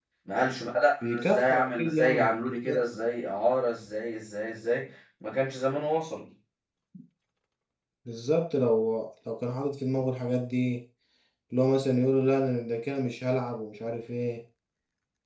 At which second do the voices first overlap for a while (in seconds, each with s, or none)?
1.0 s